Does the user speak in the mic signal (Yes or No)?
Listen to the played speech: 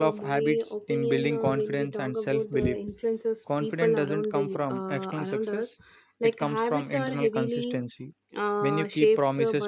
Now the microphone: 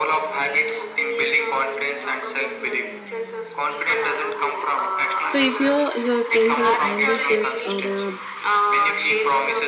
Yes